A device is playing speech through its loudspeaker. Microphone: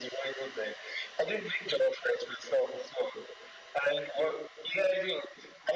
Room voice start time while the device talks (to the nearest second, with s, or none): none